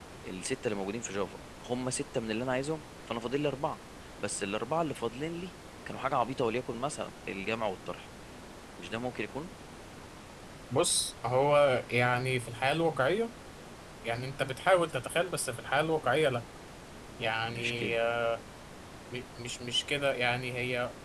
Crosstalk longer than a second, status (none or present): none